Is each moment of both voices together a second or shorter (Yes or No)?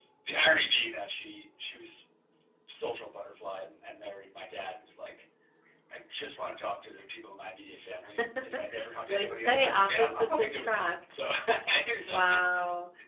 No